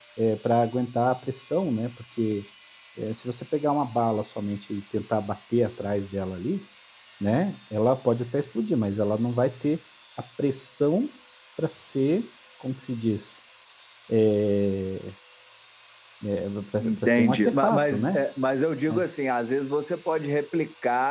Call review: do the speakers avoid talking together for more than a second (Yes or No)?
No